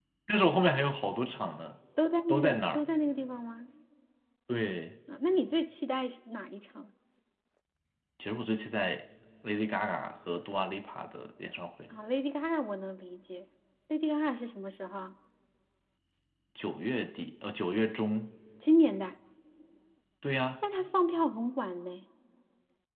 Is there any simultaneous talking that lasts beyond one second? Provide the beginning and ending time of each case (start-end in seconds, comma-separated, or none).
none